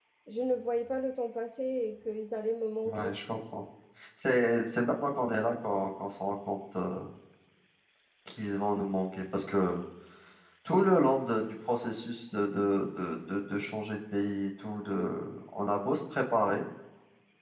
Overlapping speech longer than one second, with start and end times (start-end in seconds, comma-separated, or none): none